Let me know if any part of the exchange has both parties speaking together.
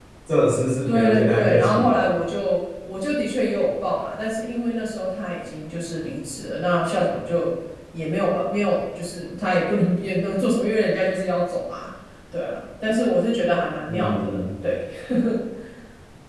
Yes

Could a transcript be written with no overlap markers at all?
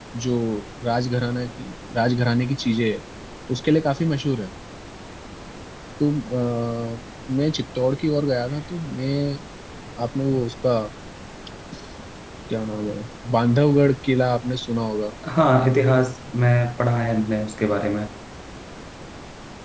Yes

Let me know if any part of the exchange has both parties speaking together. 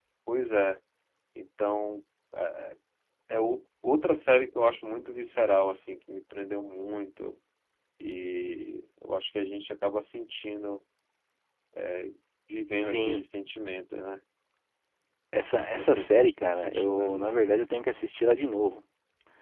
Yes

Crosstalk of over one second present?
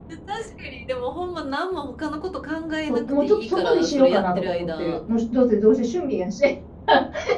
Yes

